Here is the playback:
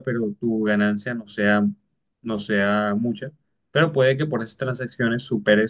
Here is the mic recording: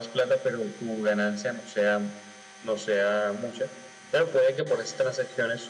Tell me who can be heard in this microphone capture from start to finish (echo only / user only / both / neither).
echo only